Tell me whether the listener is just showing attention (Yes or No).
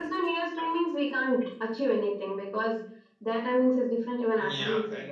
No